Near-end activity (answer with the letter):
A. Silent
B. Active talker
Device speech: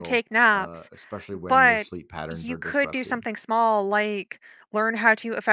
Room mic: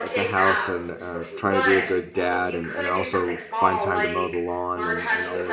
B